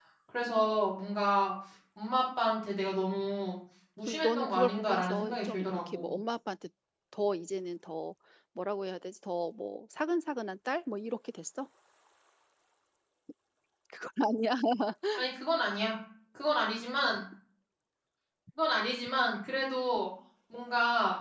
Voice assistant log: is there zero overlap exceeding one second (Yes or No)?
No